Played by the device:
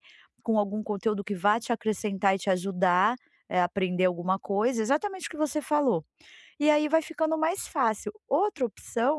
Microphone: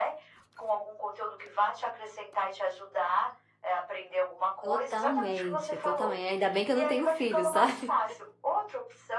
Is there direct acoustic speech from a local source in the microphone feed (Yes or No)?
Yes